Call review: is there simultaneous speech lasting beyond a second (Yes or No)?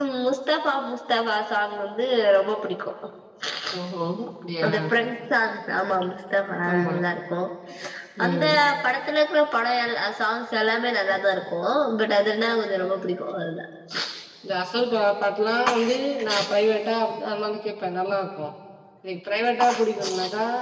No